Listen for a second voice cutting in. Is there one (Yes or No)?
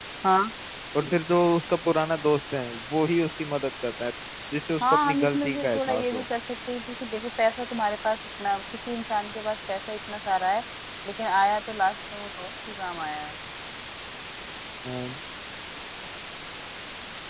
Yes